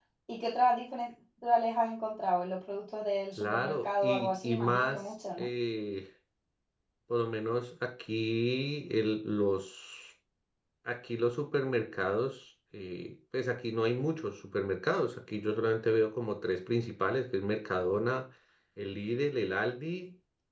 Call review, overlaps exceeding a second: present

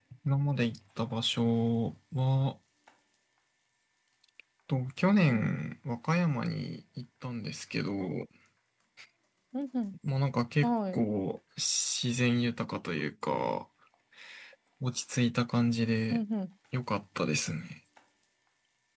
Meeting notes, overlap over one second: none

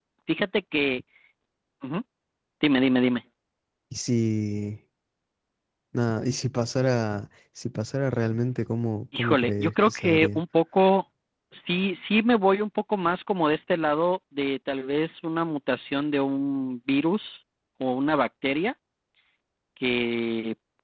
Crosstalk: present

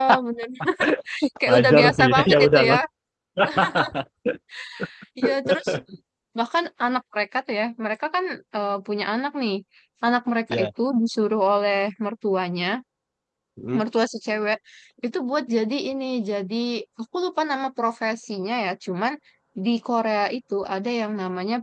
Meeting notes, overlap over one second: present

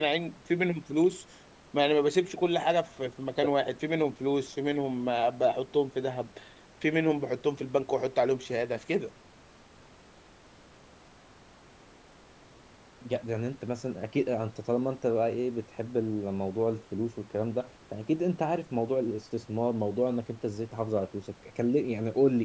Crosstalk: none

